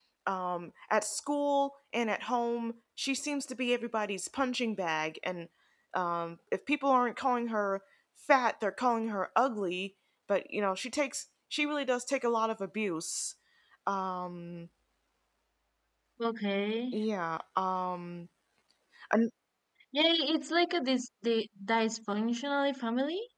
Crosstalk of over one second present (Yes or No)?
No